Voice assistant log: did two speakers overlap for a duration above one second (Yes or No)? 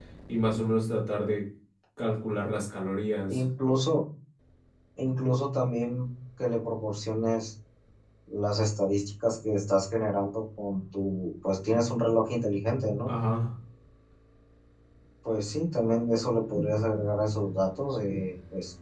No